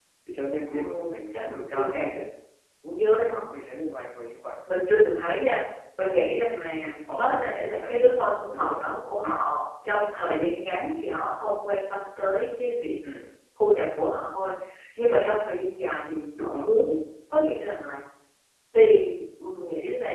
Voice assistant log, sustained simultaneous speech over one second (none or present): present